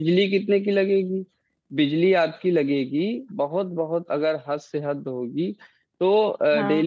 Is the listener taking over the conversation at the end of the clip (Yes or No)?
No